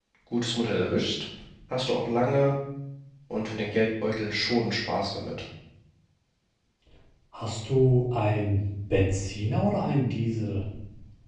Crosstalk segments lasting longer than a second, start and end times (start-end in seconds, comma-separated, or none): none